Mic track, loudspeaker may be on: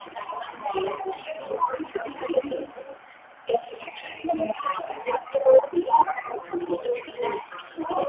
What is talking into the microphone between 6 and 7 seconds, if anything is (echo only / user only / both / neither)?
echo only